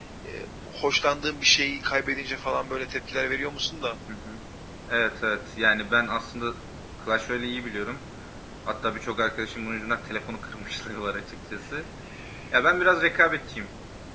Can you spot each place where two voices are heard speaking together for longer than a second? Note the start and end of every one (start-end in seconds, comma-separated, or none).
none